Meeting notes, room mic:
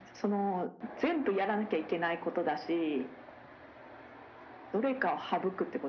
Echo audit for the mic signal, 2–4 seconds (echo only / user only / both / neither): echo only